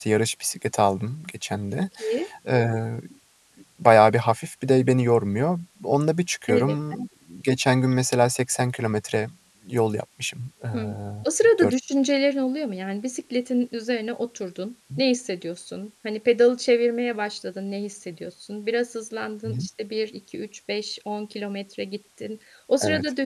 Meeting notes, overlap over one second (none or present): none